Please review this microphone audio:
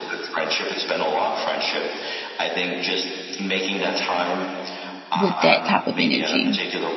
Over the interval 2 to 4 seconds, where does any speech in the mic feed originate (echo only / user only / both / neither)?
echo only